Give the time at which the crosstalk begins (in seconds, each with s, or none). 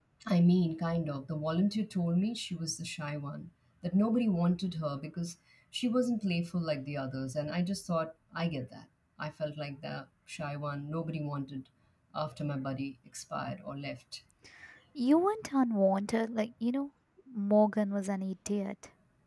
none